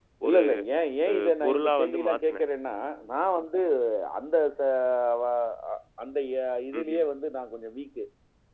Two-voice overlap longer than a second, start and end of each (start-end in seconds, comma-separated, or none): 1.1-2.4